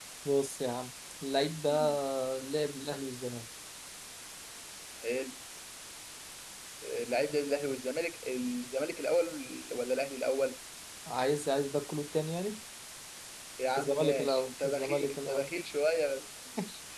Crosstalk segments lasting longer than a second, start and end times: 13.8-15.5

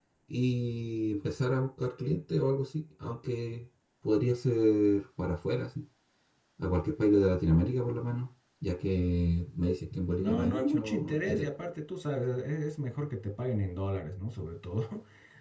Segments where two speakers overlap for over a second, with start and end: 10.2-11.5

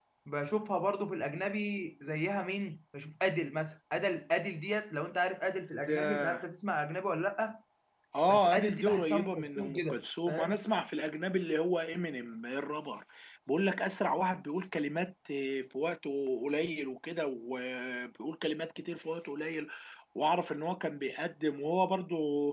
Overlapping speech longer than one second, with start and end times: 8.3-10.6

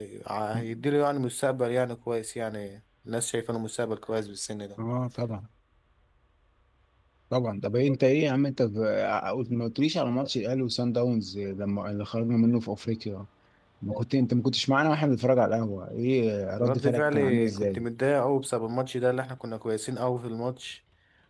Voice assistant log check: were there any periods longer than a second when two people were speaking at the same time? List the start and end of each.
16.6-17.8

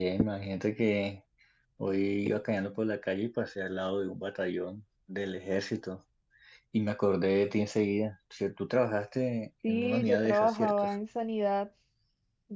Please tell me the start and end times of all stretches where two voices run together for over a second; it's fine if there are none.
9.7-10.9

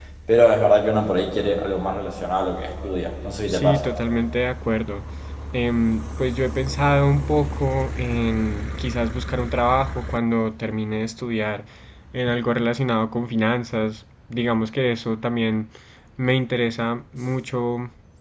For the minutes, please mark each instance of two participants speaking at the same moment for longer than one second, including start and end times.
none

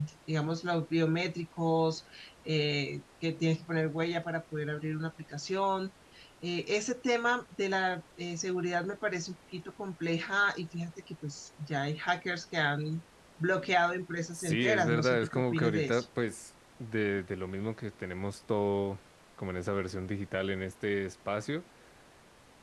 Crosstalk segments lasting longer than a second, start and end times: 14.3-16.1

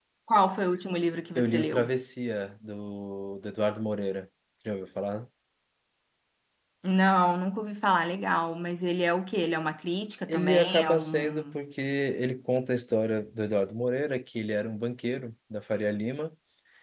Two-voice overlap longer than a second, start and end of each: 10.3-11.6

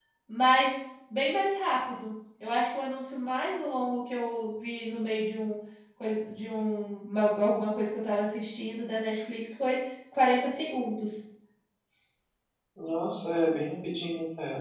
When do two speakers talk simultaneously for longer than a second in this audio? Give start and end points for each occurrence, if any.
none

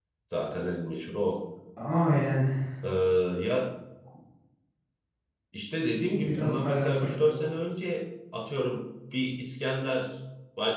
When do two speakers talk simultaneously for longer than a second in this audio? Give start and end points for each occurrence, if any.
6.1-7.6

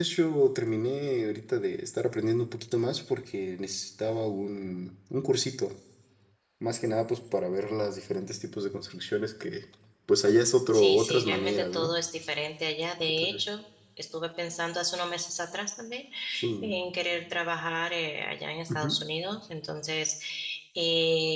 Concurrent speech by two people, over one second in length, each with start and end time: 10.7-11.9

